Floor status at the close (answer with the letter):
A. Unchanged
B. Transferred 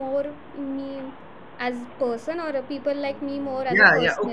B